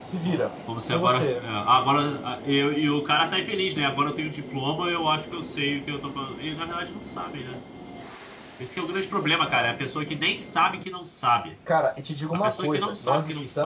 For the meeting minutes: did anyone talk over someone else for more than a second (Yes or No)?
Yes